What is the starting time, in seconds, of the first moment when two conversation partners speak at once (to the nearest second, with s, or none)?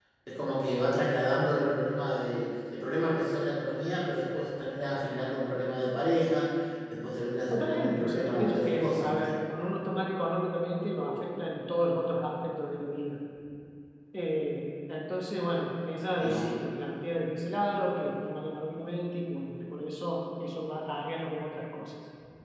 7 s